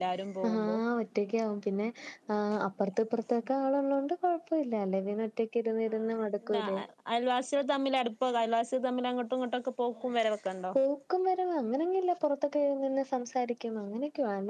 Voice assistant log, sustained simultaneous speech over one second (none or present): none